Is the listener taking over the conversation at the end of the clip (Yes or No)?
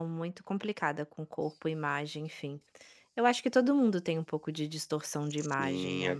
Yes